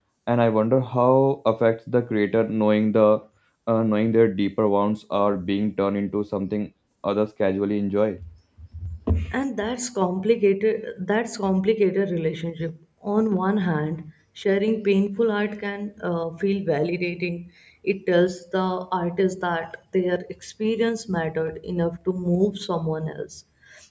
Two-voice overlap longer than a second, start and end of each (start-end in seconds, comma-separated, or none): none